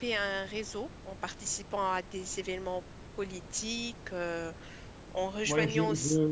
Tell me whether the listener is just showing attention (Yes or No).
No